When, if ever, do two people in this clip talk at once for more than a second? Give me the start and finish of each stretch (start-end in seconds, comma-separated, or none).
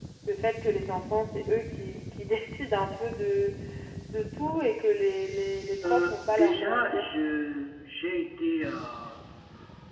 5.8-7.0